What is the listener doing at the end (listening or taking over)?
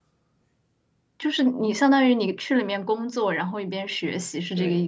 taking over